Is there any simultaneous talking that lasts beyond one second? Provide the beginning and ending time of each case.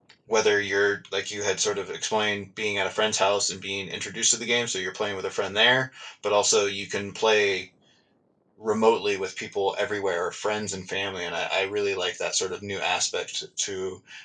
none

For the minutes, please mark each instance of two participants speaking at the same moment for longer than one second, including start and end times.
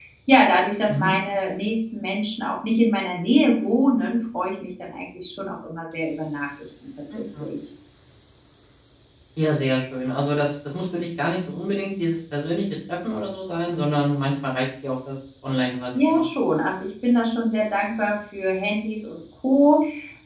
none

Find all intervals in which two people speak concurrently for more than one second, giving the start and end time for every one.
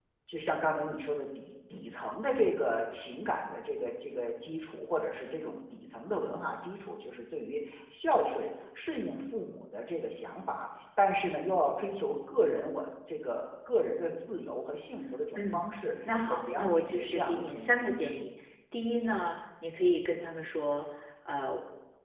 16.3-17.7

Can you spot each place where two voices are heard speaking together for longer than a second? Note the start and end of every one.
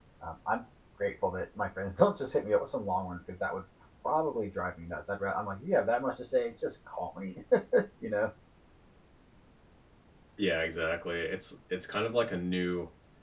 none

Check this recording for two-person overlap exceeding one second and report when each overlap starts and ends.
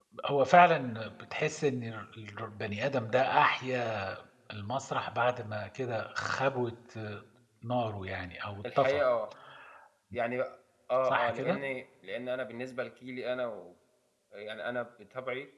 none

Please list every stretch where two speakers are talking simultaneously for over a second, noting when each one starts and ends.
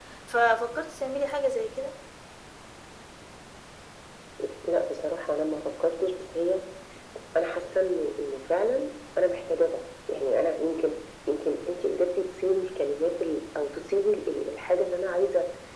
none

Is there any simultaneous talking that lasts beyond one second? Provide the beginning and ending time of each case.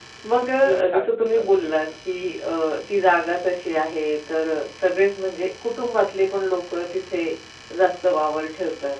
0.6-1.8

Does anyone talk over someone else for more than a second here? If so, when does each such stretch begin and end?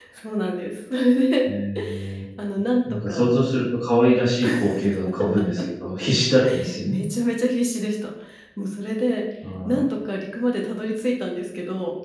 none

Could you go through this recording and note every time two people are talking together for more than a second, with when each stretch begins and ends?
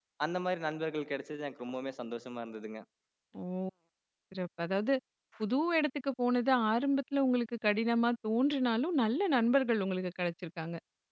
none

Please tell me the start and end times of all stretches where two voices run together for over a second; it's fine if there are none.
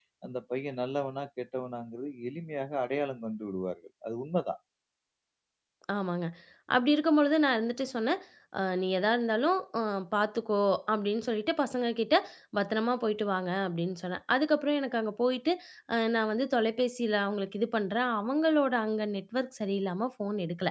none

